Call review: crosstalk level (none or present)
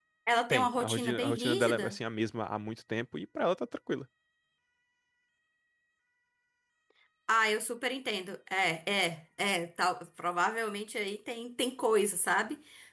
present